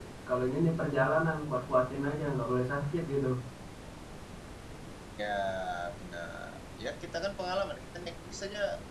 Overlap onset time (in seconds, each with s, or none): none